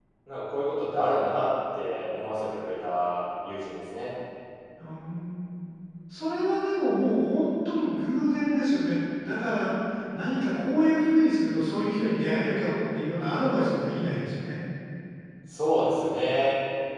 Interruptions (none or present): none